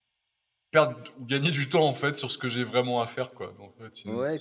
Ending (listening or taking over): taking over